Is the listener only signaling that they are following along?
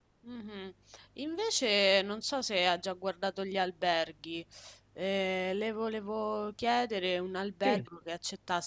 Yes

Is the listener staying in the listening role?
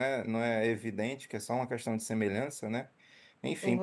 Yes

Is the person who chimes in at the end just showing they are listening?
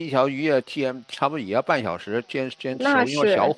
Yes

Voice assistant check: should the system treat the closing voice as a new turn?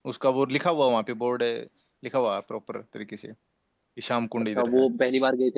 Yes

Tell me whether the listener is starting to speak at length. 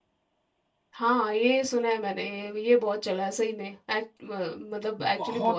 Yes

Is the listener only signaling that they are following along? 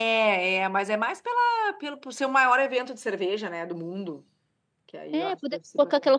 No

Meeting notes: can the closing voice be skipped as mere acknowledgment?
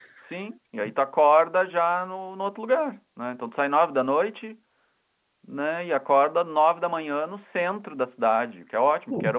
Yes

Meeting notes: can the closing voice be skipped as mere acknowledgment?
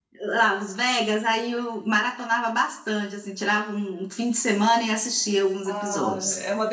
No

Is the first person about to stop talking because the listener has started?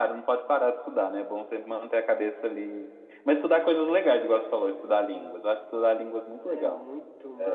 Yes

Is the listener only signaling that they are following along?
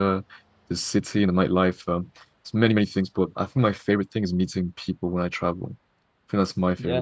Yes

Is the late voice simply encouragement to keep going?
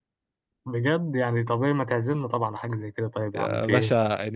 No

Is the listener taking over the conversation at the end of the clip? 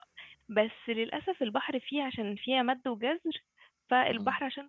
No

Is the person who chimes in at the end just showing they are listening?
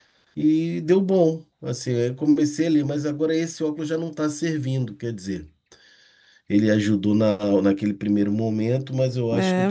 No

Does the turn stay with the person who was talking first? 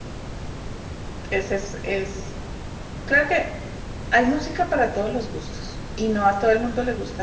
Yes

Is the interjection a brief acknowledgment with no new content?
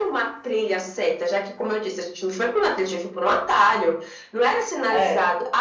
Yes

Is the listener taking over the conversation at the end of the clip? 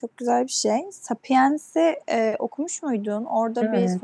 No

